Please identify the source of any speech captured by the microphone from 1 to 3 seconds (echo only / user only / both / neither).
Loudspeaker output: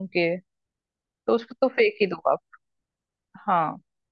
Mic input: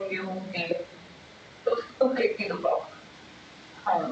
echo only